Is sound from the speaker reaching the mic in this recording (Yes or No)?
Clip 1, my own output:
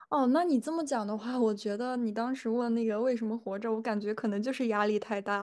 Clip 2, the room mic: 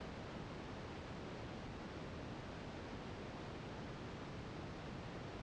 No